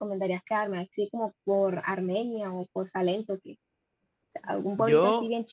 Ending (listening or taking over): listening